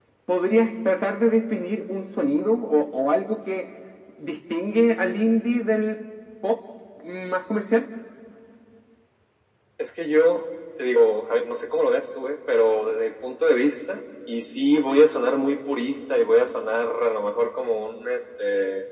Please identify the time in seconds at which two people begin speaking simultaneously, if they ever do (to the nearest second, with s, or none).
none